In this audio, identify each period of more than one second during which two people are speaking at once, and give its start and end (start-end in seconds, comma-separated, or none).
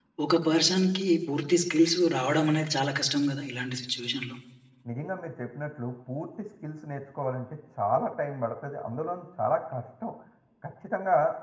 none